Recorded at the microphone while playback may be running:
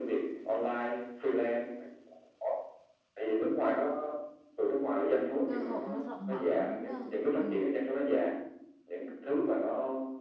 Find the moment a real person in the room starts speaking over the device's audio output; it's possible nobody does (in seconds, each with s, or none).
5.4 s